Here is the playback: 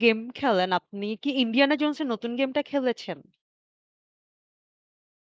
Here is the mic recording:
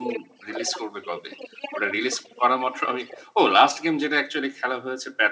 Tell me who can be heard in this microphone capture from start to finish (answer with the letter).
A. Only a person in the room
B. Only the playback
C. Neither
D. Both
D